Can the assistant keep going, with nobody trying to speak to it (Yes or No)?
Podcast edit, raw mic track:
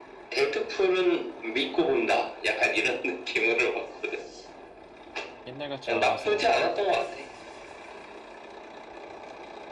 No